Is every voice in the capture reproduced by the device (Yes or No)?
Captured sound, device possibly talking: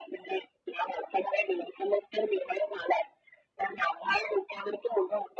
Yes